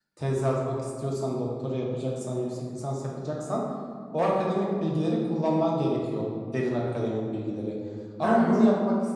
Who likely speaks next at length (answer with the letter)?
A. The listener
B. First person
B